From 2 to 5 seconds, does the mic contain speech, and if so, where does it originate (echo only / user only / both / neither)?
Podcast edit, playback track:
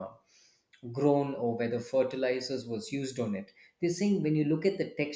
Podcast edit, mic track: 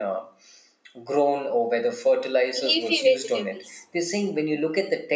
both